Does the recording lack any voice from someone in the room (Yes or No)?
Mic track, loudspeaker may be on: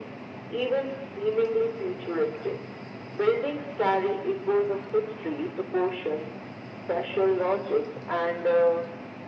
Yes